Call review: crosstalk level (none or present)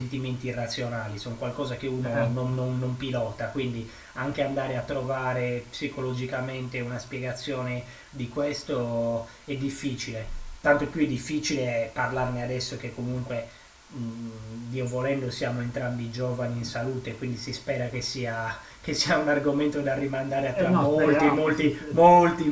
present